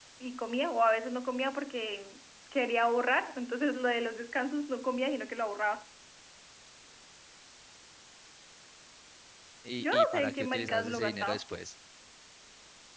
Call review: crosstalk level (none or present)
present